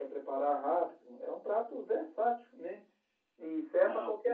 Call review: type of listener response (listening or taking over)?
listening